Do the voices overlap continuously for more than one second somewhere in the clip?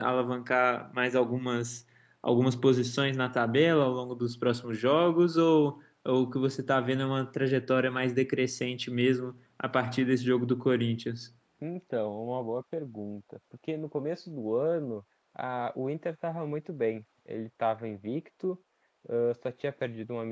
No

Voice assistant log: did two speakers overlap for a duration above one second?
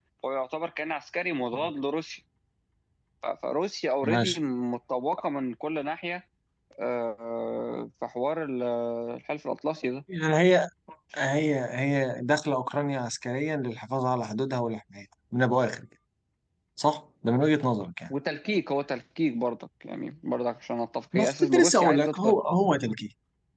Yes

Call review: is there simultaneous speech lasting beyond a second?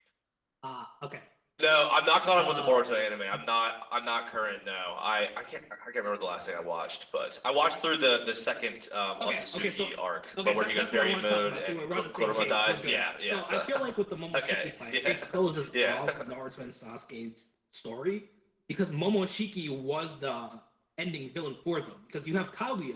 Yes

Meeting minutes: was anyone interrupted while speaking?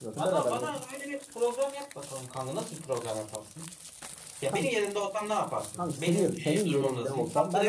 Yes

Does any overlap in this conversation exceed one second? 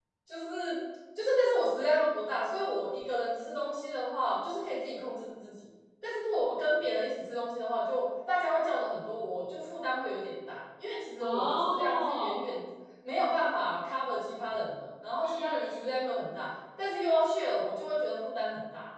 Yes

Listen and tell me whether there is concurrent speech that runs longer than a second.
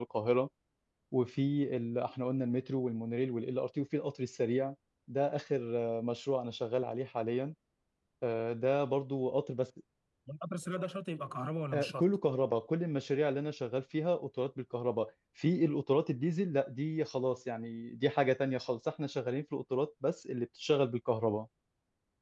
No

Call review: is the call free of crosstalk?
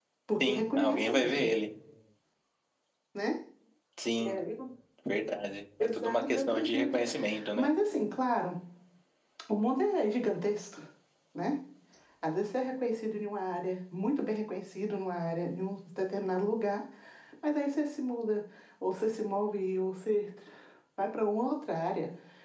No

